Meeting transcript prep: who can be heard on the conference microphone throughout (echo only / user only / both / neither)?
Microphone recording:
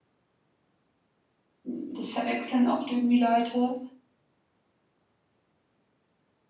user only